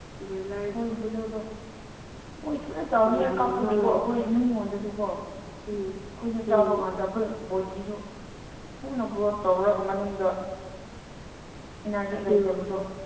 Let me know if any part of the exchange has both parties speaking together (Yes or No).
Yes